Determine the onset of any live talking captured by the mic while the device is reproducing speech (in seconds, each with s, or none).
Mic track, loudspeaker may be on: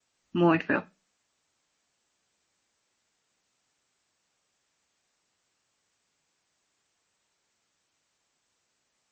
0.3 s